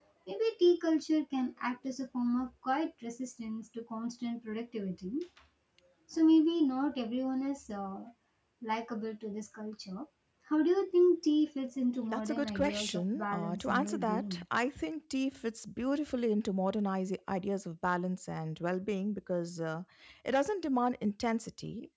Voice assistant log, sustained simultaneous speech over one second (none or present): present